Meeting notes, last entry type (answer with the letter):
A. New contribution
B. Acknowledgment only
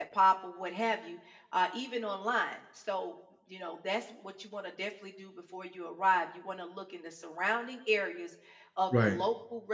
B